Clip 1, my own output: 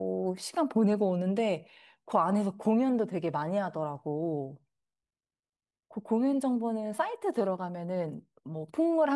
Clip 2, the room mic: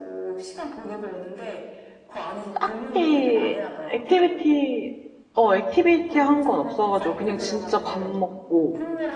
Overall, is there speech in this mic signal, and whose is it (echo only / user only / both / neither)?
both